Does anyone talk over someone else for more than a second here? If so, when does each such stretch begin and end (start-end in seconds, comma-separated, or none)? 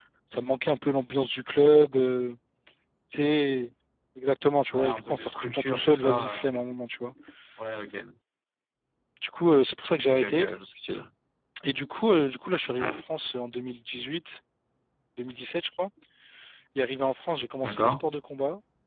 4.7-6.5